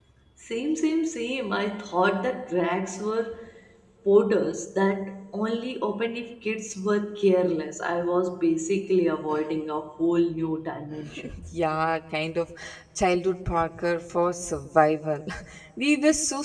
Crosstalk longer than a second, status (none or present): none